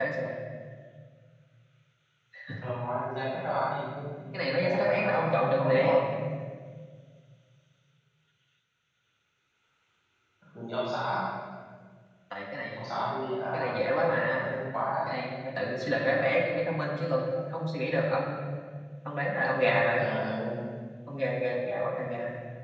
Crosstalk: present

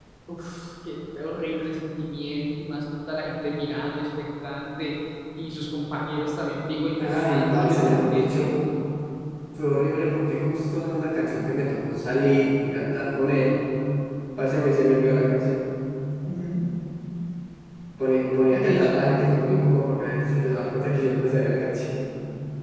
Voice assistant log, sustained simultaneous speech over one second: present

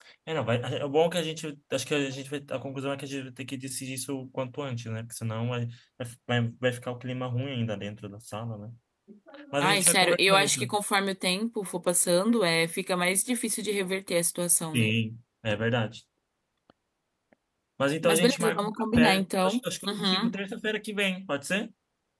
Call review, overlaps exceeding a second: present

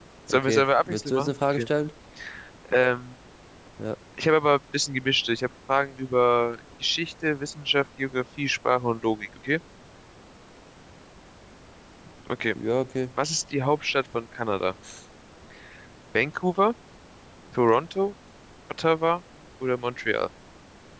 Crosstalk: present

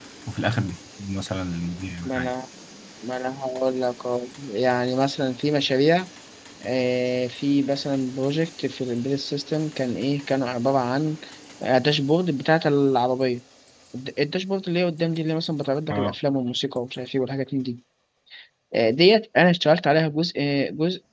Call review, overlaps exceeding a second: none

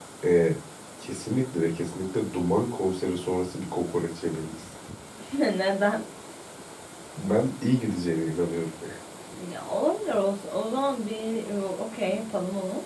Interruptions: none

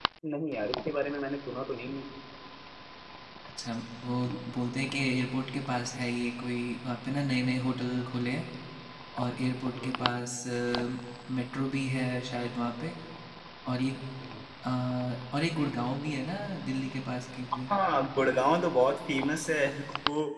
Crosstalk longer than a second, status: none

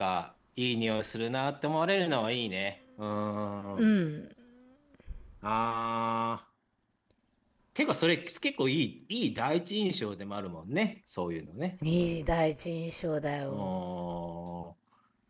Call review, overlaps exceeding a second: none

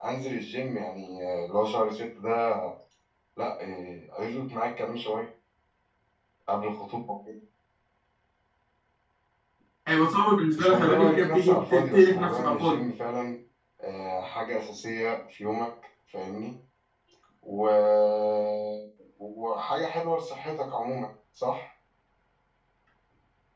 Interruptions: present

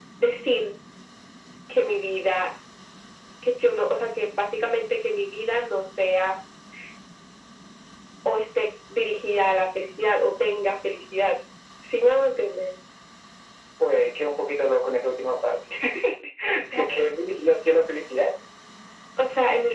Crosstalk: none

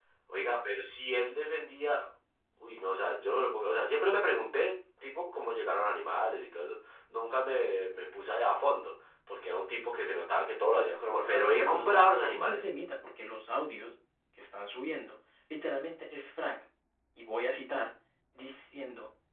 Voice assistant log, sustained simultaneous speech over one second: present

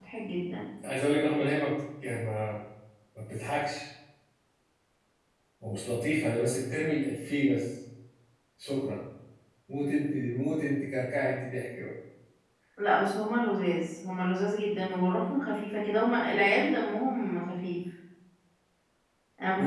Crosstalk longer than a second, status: none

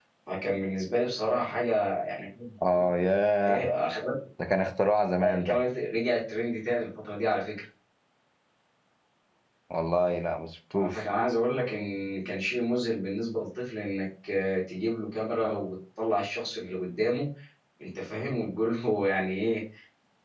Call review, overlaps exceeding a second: none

